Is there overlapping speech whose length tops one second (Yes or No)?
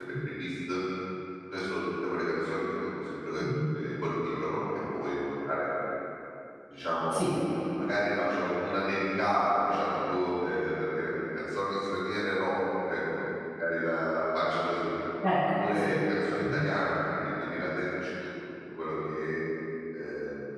No